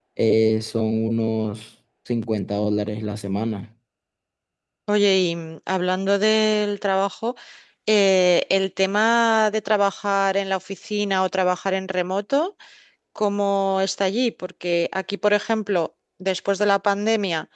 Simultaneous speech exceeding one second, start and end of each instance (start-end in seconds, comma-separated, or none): none